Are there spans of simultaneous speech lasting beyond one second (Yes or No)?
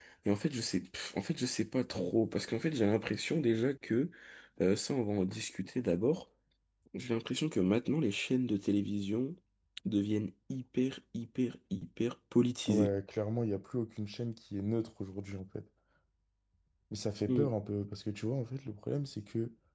No